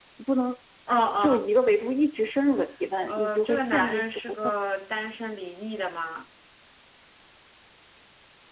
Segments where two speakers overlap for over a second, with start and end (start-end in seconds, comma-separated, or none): 3.1-4.5